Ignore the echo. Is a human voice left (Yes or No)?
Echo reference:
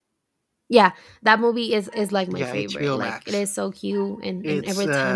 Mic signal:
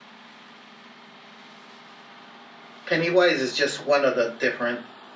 Yes